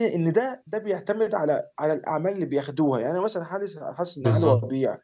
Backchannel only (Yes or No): Yes